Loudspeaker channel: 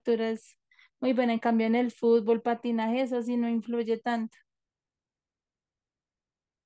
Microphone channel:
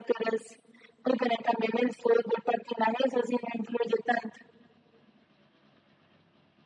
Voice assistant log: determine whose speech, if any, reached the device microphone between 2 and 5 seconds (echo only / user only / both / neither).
echo only